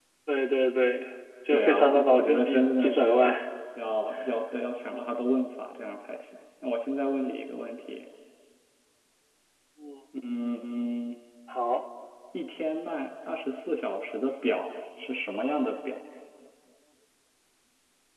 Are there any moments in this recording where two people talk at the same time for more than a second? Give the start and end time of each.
1.5-3.3

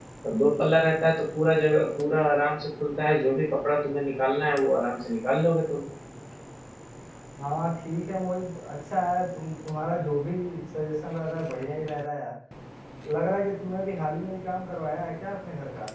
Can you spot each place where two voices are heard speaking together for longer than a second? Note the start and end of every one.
none

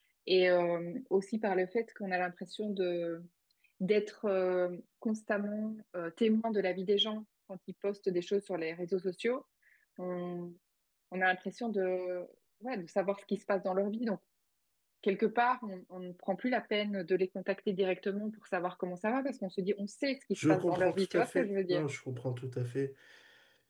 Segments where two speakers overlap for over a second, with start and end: 20.5-21.8

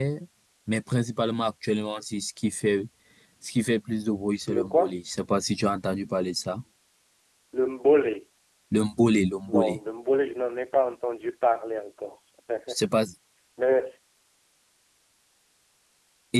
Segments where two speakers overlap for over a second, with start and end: none

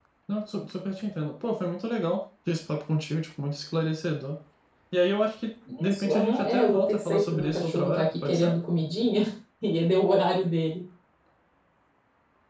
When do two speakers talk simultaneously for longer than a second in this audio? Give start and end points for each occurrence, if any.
5.9-8.5

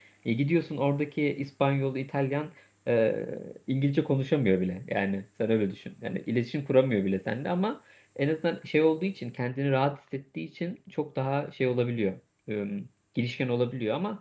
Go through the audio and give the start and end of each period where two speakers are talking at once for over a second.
none

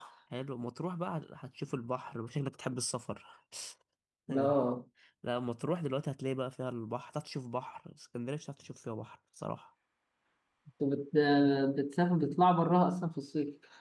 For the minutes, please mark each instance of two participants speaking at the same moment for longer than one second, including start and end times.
none

